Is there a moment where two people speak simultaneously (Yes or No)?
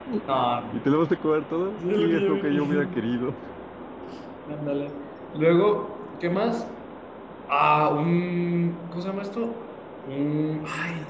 Yes